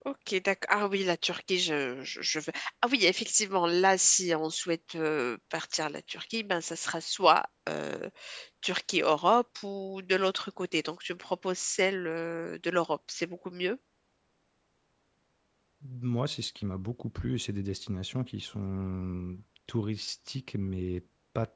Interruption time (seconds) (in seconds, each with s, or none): none